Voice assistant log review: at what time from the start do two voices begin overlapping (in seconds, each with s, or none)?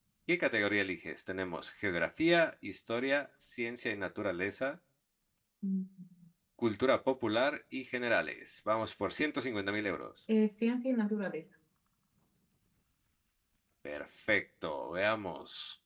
none